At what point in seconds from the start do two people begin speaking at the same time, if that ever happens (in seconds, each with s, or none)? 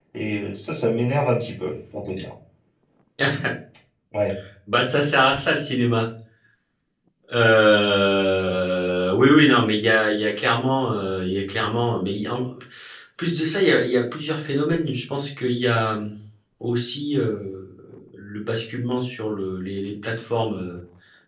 none